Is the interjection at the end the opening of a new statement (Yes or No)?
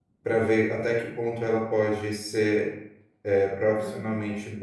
No